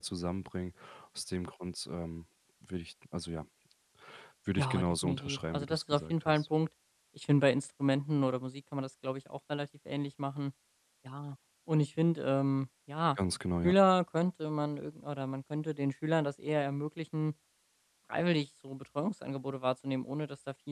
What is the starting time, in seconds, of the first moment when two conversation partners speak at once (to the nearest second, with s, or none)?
5 s